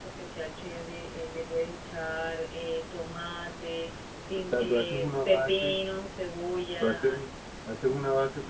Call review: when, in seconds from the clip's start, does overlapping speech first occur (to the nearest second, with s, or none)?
4 s